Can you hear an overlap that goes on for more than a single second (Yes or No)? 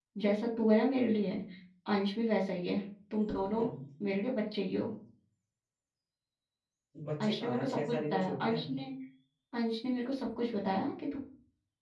Yes